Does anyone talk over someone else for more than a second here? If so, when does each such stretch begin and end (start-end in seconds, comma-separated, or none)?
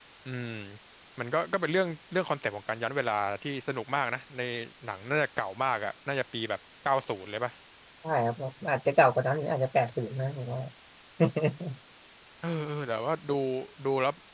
none